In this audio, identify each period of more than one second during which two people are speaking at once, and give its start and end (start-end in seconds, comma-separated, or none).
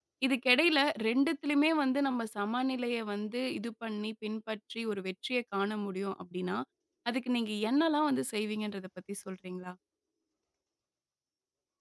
none